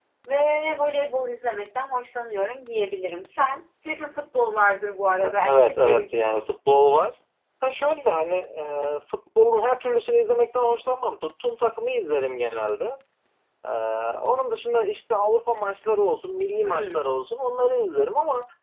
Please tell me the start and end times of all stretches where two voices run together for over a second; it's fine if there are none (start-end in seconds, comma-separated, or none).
5.2-6.4